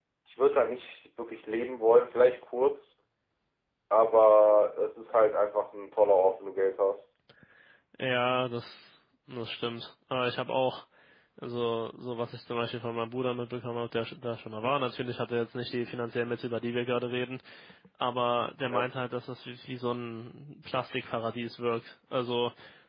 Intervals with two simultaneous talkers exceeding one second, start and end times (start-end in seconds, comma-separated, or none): none